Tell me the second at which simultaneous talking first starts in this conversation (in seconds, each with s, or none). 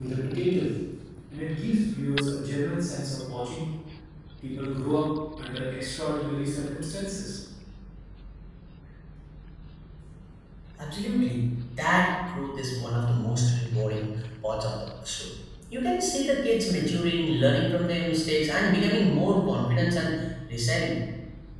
none